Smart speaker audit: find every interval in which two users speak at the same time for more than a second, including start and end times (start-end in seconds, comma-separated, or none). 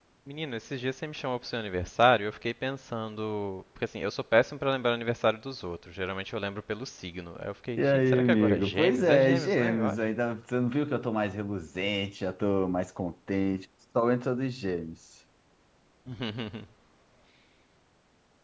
7.8-10.0